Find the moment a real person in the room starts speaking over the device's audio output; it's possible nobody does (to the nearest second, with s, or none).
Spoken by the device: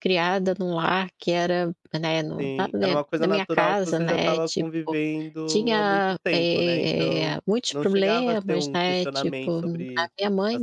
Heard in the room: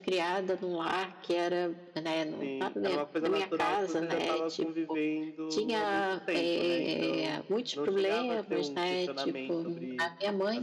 none